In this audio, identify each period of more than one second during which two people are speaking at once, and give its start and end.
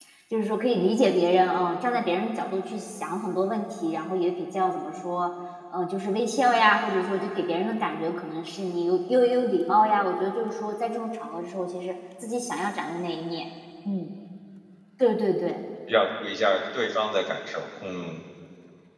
none

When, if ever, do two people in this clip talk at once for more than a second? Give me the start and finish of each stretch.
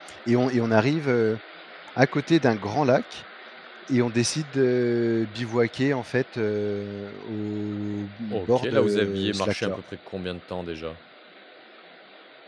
8.3-9.8

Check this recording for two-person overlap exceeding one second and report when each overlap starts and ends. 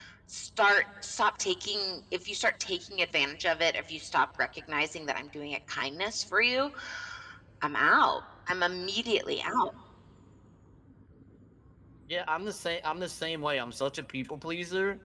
none

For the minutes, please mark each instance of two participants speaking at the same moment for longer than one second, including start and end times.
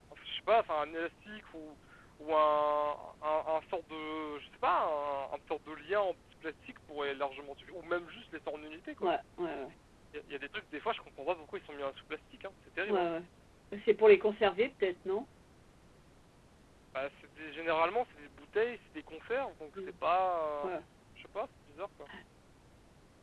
none

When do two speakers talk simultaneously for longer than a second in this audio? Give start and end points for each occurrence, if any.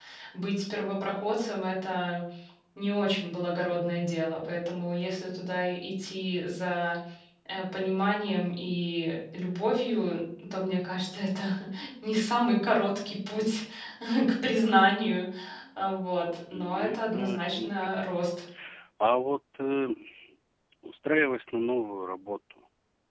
16.5-17.9

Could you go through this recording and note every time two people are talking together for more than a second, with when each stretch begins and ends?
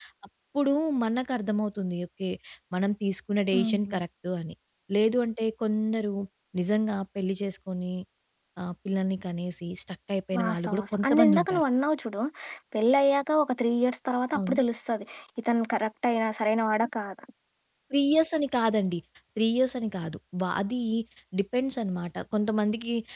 10.4-11.6

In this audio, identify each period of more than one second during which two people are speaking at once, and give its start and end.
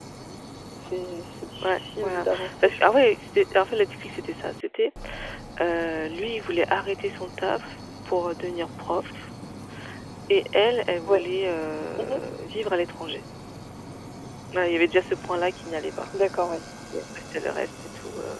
1.6-3.2

